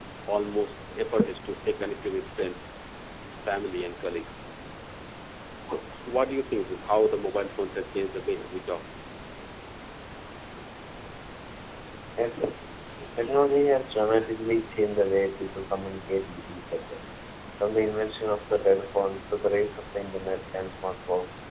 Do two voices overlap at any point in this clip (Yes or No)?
No